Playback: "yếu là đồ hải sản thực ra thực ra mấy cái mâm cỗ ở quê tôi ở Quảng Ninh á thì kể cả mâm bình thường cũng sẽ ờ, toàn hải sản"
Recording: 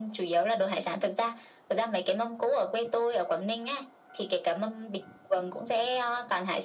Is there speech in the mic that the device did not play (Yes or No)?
No